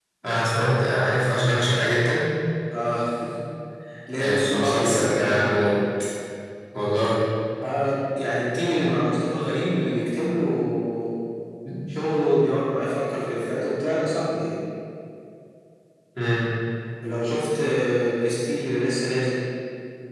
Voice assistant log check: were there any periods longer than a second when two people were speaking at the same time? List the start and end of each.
4.2-5.7

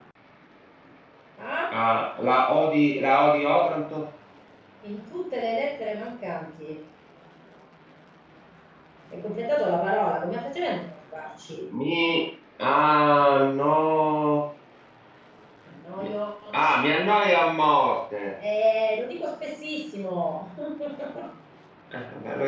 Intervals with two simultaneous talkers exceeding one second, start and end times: none

